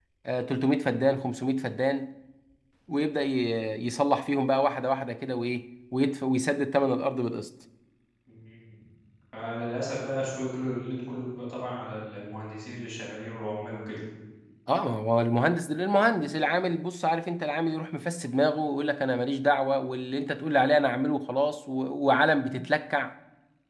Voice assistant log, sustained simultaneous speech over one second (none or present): none